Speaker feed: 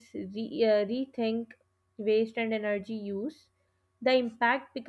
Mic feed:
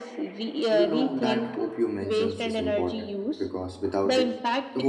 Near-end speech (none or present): present